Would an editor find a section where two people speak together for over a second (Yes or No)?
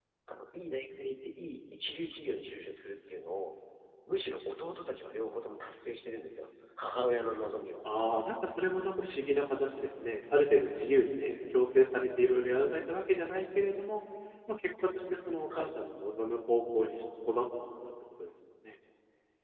No